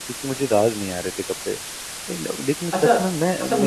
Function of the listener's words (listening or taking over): taking over